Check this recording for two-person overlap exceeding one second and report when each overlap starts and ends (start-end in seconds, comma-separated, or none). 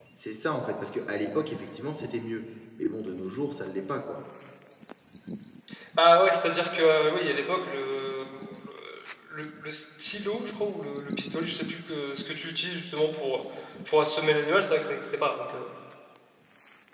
none